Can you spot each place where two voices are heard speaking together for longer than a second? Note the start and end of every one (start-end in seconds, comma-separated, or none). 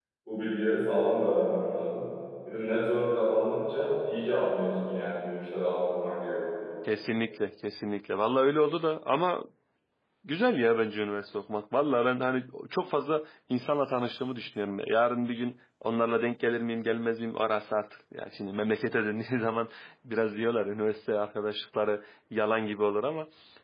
none